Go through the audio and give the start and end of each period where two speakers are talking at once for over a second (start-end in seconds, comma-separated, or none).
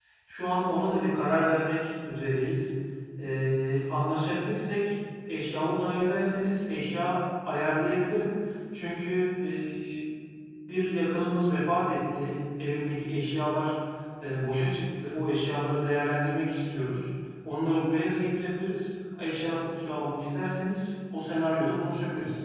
none